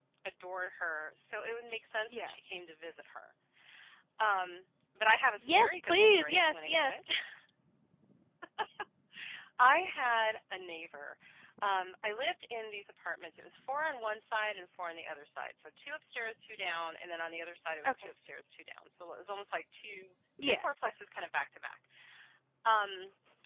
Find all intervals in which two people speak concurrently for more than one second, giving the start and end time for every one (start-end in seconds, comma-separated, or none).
5.4-7.0